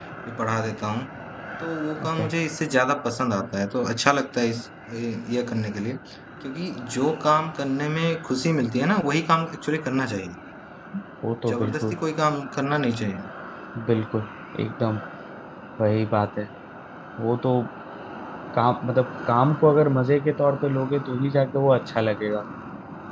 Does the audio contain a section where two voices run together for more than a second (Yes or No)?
No